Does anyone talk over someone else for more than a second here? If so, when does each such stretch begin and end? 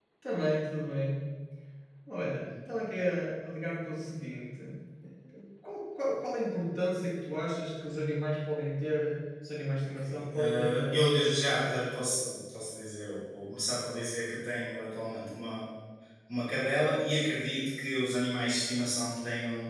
9.9-11.8

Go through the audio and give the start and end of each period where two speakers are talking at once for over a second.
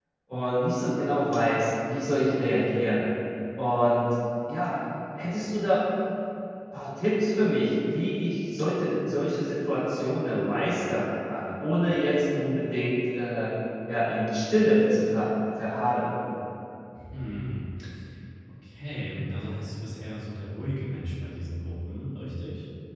none

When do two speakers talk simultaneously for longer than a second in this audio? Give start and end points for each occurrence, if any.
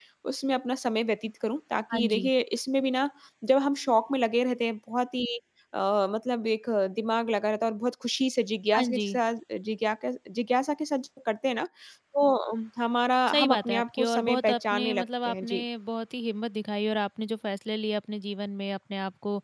13.3-15.6

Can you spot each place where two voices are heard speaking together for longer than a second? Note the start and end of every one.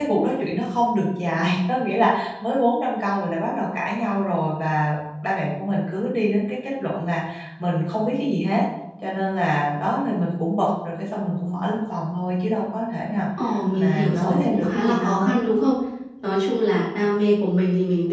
13.8-15.4

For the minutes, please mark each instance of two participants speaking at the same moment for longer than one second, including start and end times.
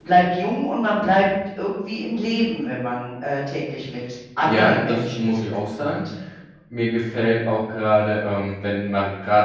4.4-6.0

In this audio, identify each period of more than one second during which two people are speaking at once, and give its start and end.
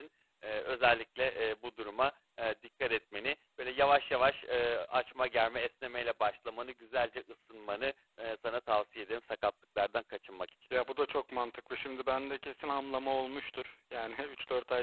none

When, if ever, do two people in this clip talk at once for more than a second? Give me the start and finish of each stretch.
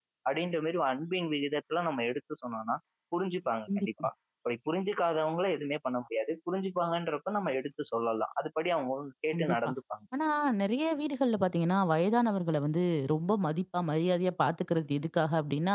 none

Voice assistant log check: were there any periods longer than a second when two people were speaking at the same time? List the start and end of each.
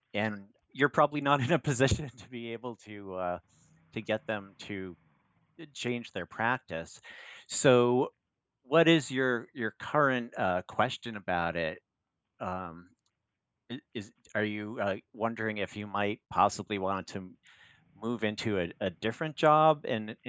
none

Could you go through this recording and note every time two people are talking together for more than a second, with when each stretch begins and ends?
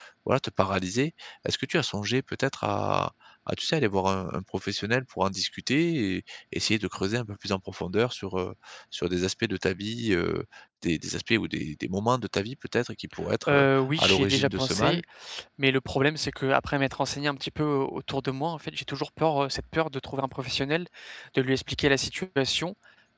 13.5-15.0

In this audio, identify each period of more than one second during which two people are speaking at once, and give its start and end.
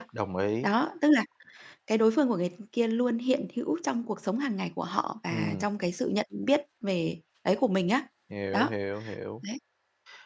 none

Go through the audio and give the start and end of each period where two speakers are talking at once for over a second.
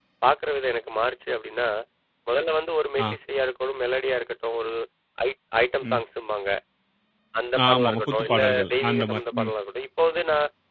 7.6-9.5

